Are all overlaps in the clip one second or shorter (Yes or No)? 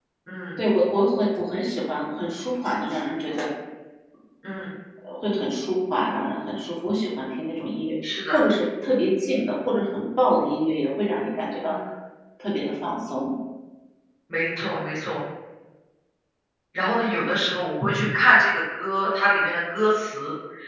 Yes